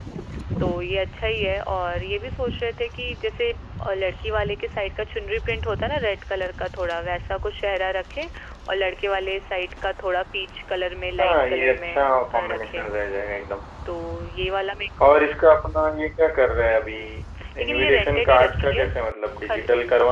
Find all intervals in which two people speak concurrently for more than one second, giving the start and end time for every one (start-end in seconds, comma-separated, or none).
11.2-12.9, 17.6-18.8